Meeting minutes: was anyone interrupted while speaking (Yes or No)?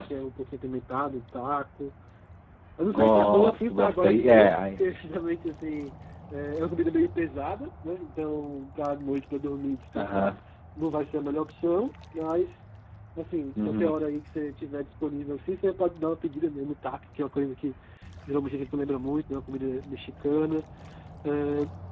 Yes